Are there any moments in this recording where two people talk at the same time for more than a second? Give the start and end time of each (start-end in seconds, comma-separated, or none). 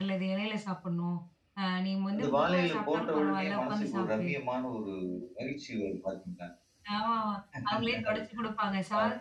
2.2-4.3